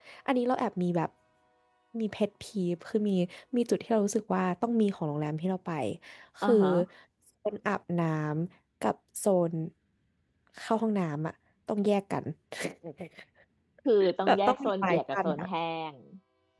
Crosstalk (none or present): present